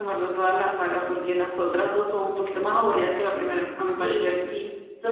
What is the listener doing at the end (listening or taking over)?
taking over